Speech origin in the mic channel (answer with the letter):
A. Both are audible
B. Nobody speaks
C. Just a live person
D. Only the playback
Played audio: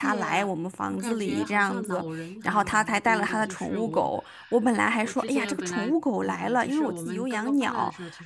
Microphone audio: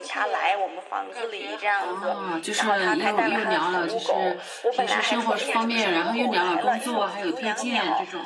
A